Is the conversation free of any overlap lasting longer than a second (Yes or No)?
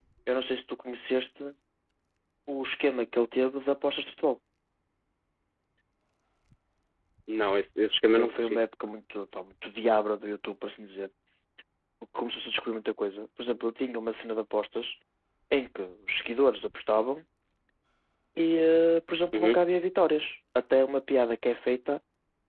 Yes